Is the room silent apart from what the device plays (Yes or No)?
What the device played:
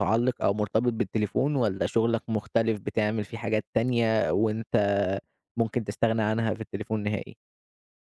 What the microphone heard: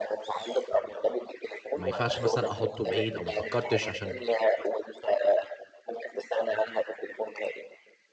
No